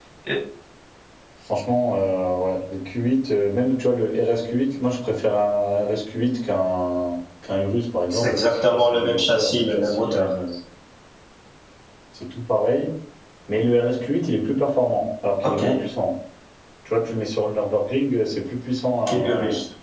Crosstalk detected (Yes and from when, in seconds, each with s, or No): Yes, from 8.1 s